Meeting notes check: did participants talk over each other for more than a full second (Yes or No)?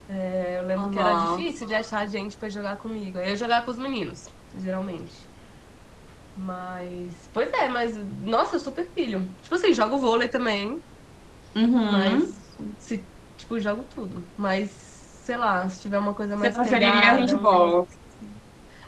Yes